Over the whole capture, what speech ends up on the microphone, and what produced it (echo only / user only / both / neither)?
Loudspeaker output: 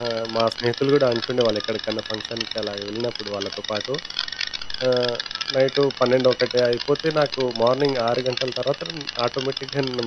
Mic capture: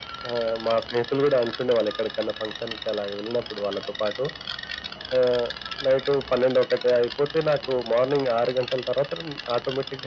echo only